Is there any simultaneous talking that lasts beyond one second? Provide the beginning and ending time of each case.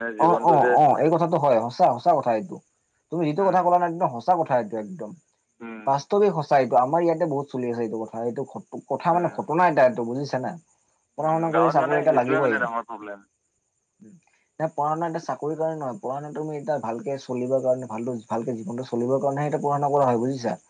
11.2-12.6

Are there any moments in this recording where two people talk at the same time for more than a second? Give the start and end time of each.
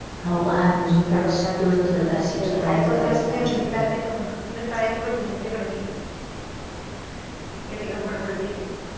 1.1-3.6

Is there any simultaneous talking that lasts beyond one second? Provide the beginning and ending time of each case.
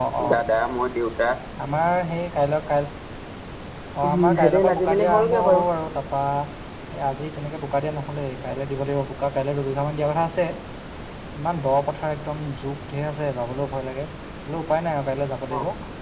4.0-5.6

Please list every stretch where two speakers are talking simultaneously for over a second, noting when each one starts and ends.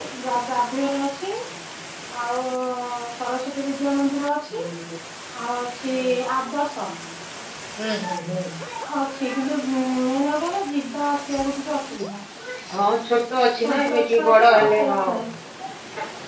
13.6-15.0

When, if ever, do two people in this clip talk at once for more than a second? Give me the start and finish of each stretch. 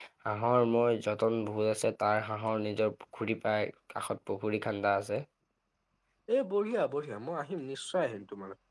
none

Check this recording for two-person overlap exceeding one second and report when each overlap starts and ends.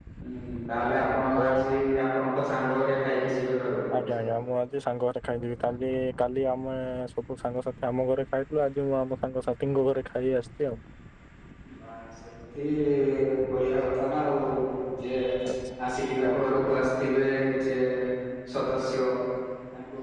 none

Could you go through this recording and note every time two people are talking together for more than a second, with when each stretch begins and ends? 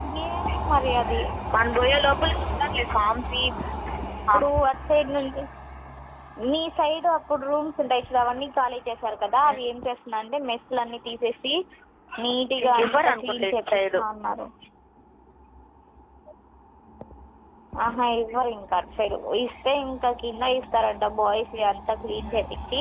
12.7-14.0

